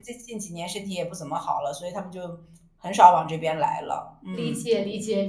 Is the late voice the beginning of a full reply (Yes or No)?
Yes